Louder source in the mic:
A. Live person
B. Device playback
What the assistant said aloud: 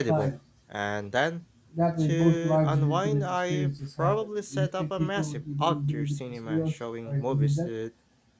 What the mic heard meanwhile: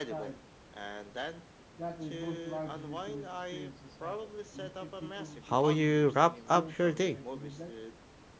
A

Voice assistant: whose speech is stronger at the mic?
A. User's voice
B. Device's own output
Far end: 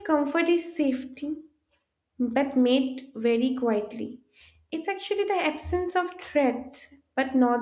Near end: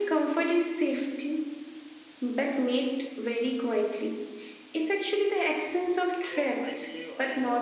B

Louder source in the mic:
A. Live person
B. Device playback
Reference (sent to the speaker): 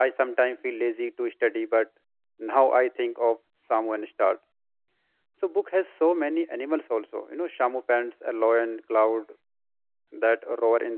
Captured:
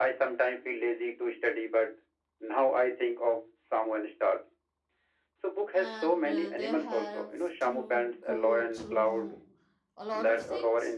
B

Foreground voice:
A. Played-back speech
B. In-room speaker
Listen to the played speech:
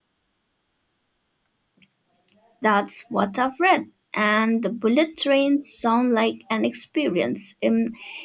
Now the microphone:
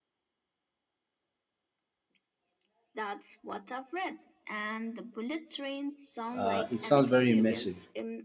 B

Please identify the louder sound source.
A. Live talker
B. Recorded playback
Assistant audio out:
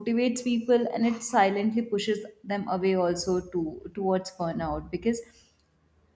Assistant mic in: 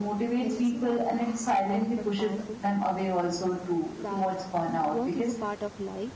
B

